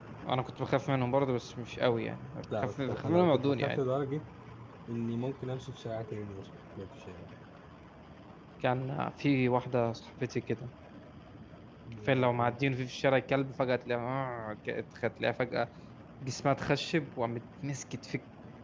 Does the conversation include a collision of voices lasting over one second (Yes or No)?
Yes